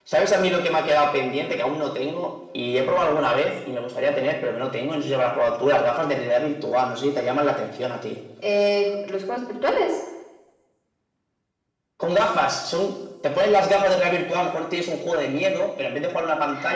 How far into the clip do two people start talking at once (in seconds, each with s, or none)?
none